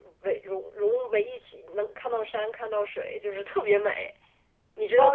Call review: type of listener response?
taking over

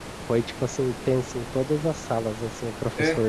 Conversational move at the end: listening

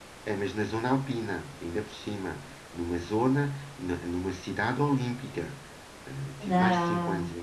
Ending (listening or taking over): listening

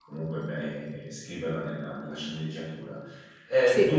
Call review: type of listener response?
listening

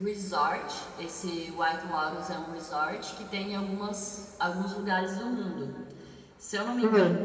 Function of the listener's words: listening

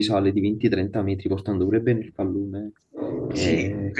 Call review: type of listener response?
taking over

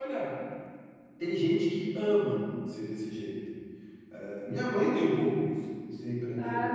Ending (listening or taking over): taking over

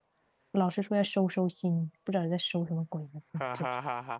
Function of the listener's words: taking over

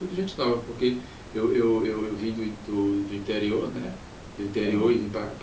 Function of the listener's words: listening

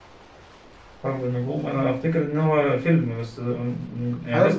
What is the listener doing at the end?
taking over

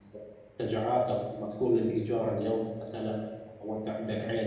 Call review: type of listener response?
listening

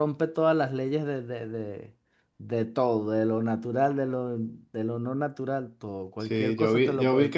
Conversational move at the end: taking over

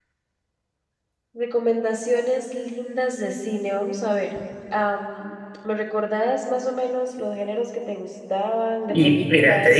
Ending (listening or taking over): taking over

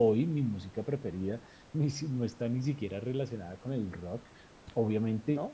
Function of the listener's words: listening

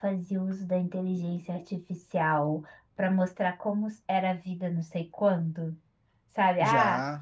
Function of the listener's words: listening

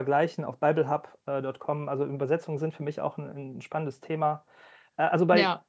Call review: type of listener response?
listening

